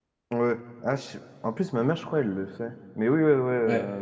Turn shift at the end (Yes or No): No